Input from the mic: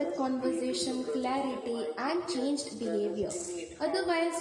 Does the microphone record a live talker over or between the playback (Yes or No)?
Yes